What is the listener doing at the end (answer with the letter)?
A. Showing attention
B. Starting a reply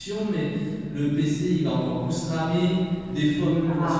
A